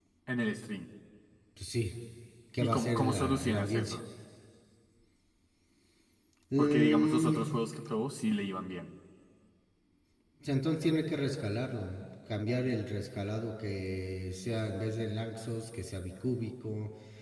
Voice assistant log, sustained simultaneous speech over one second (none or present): present